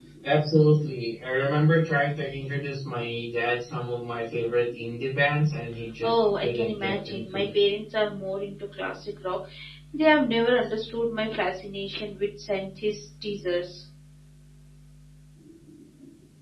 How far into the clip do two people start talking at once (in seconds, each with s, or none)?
6.0 s